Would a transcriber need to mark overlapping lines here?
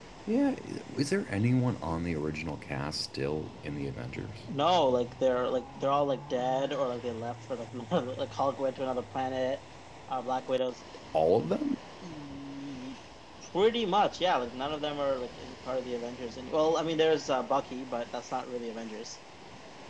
No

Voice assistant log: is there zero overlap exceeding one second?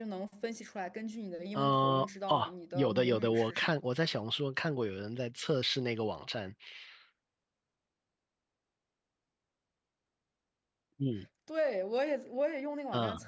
No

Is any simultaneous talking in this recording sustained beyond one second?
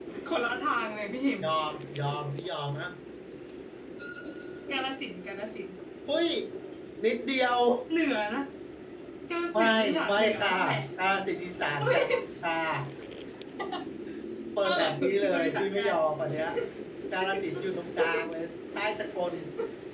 Yes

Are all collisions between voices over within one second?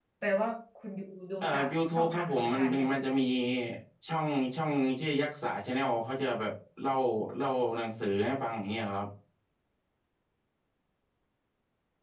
No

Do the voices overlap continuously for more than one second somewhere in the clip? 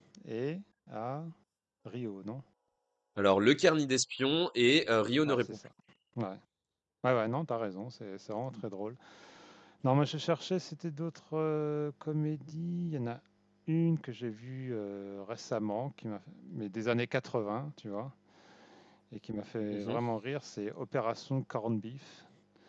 No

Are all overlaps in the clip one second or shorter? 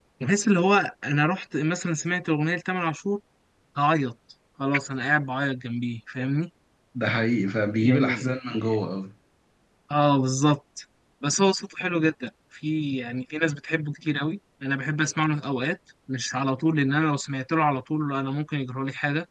Yes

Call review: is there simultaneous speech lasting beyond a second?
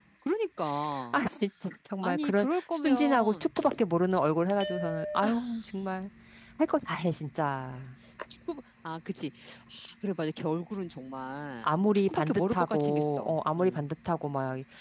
Yes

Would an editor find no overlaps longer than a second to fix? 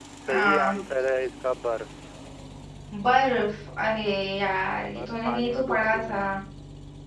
No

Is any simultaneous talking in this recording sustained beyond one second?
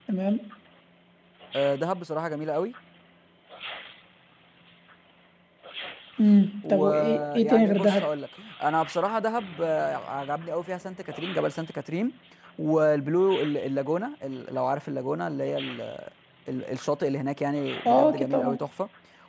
Yes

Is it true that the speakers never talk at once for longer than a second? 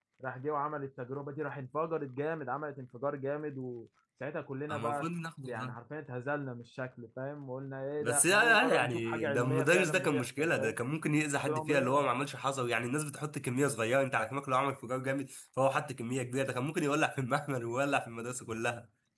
No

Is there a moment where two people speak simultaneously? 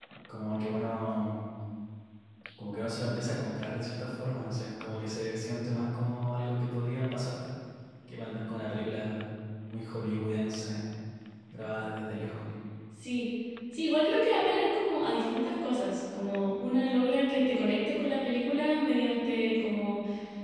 No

